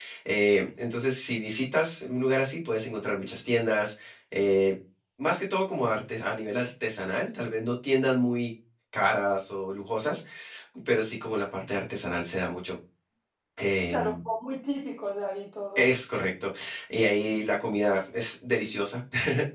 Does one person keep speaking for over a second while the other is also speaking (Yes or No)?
No